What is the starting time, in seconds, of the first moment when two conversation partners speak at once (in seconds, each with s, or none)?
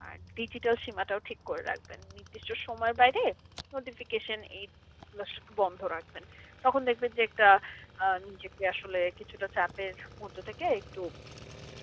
none